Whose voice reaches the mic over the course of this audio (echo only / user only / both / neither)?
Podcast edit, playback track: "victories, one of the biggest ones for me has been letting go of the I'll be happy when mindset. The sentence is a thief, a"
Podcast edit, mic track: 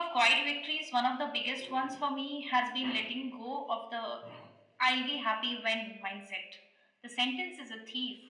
echo only